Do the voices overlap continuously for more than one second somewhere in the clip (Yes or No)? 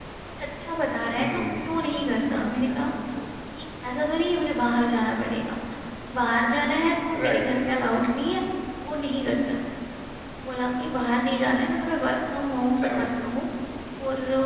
Yes